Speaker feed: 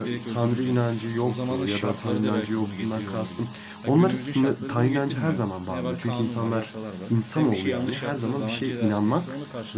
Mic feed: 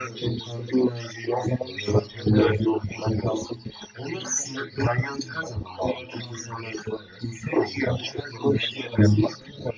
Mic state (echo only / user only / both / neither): echo only